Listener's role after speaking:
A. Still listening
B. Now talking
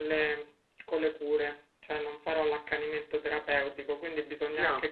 A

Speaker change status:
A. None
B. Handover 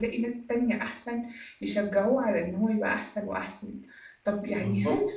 A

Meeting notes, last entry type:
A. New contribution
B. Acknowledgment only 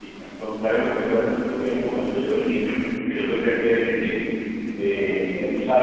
B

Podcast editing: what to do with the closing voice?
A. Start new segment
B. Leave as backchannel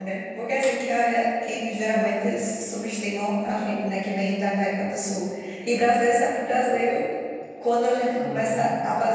B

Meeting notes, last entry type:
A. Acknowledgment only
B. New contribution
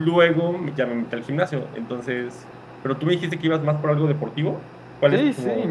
B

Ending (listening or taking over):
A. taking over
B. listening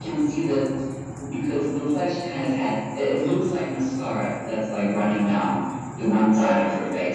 A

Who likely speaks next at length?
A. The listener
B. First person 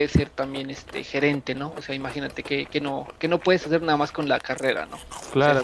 A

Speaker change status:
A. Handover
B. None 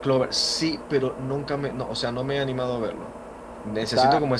B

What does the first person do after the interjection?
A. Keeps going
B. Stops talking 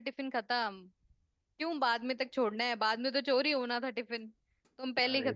B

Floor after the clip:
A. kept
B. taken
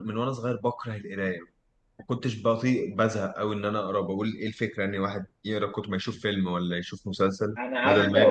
B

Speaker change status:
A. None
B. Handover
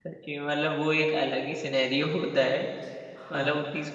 A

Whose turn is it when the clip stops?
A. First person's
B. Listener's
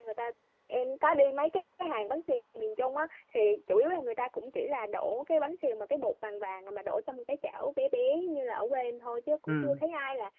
A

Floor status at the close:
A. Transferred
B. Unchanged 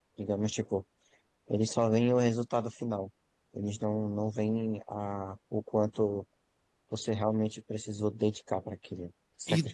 A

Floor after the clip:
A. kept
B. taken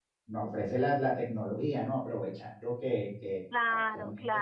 B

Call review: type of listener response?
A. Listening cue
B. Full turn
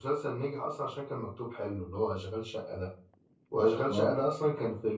A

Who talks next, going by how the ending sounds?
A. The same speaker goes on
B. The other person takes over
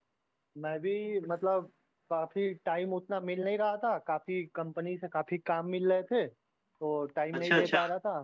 A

